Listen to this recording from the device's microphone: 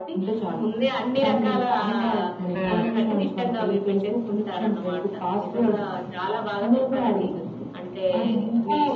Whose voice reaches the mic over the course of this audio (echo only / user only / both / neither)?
both